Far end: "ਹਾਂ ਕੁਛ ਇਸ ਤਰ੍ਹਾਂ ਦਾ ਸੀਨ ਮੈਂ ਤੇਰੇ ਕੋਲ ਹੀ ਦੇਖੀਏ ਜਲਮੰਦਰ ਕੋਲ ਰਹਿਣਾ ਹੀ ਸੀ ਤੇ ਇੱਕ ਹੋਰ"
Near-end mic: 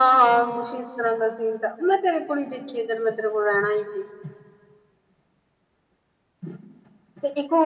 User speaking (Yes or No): No